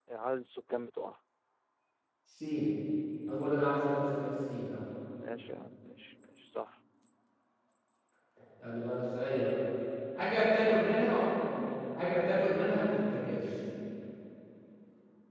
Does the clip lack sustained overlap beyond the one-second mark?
Yes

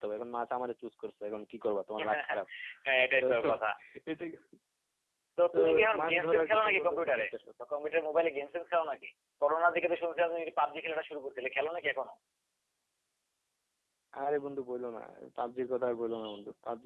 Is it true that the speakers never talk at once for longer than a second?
No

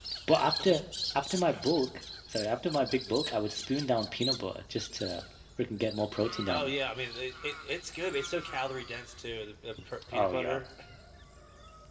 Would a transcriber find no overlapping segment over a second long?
Yes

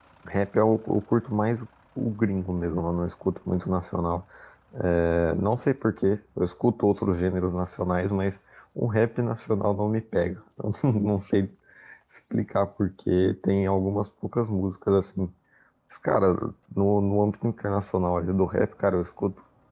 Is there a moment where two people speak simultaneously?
No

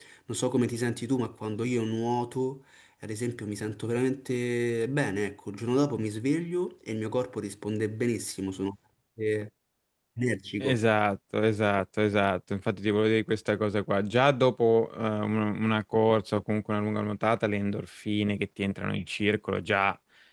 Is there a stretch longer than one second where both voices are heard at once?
No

